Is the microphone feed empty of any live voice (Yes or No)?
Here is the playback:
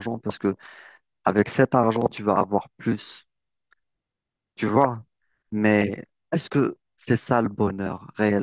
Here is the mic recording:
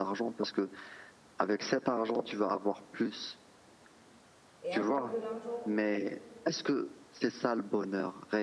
No